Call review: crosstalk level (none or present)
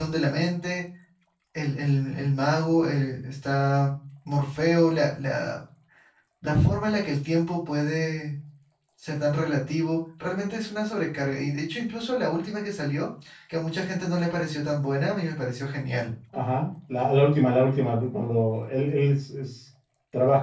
none